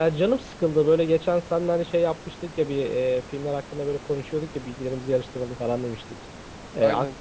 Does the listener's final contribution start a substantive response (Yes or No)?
No